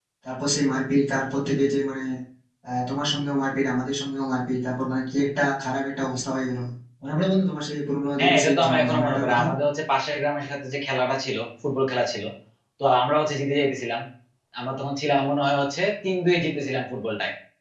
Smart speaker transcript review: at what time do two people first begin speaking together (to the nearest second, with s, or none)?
8 s